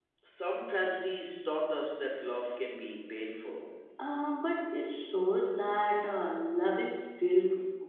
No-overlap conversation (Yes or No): Yes